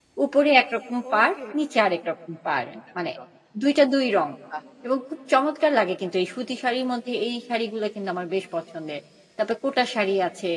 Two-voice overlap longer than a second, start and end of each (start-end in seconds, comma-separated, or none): none